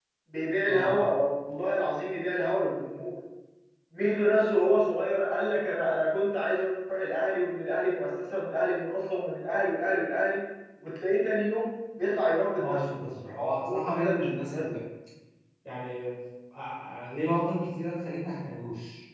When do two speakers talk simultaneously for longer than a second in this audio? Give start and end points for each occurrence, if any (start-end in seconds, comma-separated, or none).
12.6-14.7